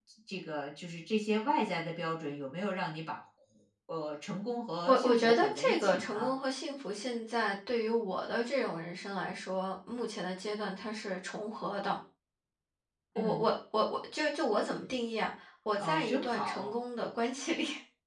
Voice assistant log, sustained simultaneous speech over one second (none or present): present